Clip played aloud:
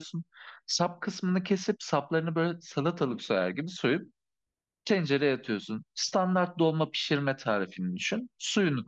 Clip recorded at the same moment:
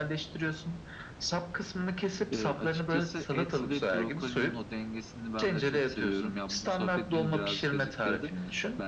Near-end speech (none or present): present